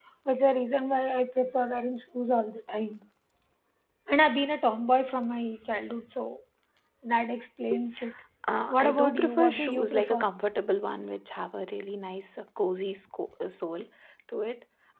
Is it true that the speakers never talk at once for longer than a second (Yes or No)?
No